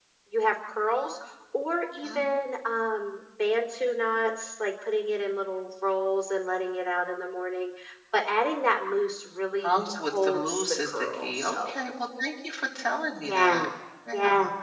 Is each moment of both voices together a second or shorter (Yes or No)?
No